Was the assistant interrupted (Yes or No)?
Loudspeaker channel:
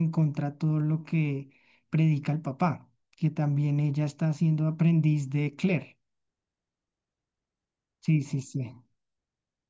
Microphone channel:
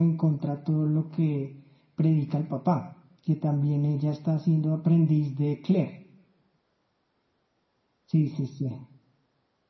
No